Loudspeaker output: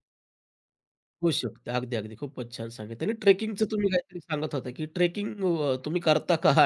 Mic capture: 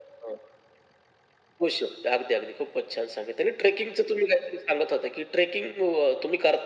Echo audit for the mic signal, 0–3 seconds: echo only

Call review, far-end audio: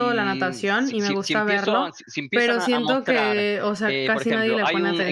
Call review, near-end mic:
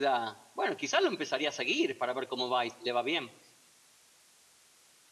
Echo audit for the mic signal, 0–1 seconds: user only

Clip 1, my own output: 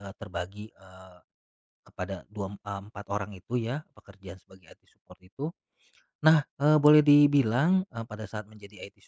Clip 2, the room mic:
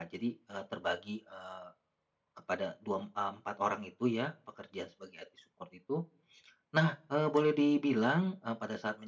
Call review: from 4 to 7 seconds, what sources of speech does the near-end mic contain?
echo only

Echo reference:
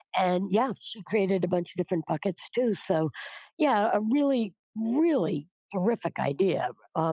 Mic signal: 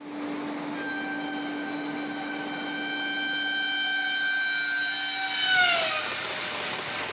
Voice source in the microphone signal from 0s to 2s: neither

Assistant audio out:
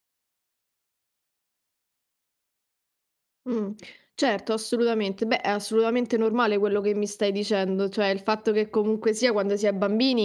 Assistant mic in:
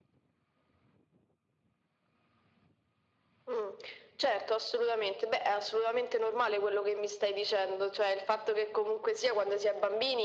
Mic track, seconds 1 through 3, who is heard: neither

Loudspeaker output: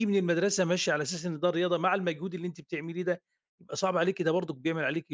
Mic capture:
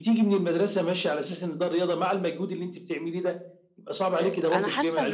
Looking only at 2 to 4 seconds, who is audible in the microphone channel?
echo only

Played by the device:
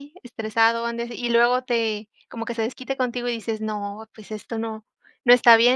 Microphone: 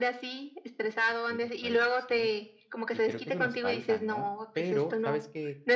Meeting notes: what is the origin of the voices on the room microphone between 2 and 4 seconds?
both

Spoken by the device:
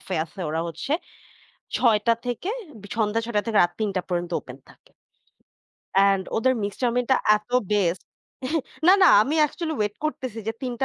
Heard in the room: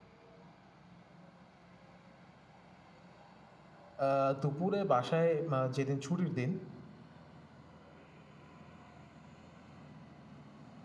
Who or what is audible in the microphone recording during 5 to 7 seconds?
user only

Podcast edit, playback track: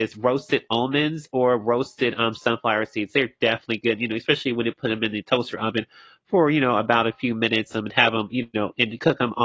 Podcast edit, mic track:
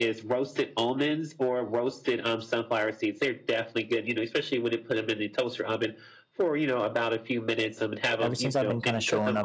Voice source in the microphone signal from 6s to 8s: echo only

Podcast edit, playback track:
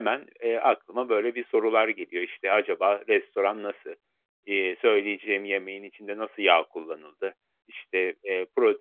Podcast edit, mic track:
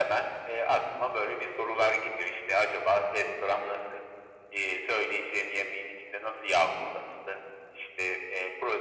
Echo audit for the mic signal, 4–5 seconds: echo only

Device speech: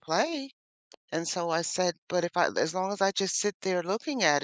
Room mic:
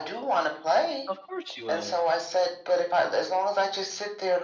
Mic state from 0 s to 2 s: both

